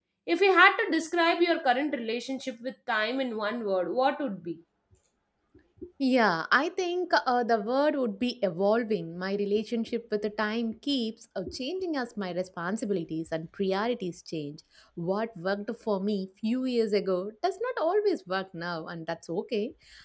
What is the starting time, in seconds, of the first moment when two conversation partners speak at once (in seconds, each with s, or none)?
none